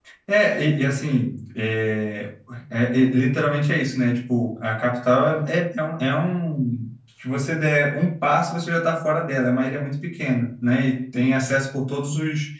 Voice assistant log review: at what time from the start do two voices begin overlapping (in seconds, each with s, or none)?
none